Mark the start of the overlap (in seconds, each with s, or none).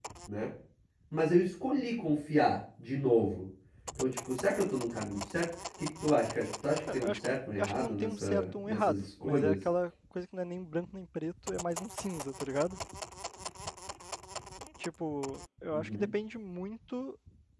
6.9 s